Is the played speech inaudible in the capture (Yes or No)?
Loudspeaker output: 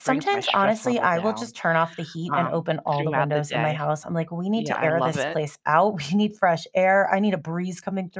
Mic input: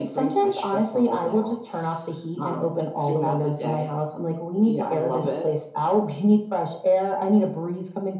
No